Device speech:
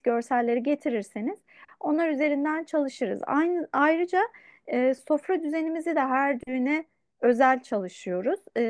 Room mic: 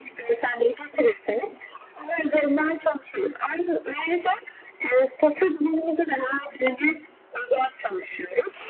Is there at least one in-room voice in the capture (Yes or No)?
No